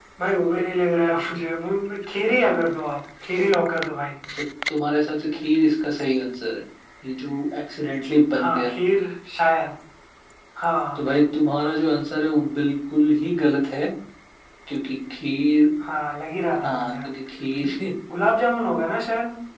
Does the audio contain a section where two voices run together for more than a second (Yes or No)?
No